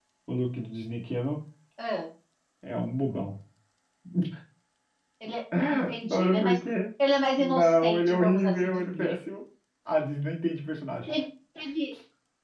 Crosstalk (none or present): present